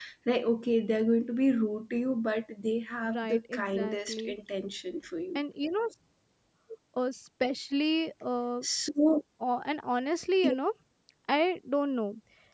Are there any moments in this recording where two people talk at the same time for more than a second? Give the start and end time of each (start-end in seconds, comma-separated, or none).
3.1-4.3